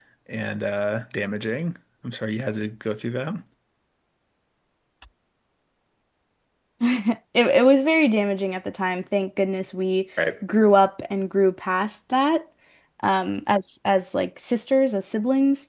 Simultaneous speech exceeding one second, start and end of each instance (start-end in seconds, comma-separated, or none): none